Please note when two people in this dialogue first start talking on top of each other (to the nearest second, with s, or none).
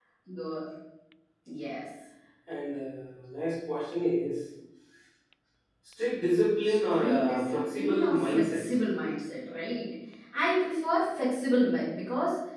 7 s